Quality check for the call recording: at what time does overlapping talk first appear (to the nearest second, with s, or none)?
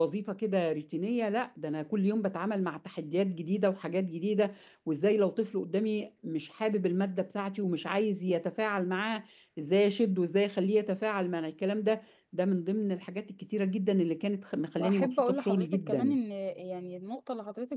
15 s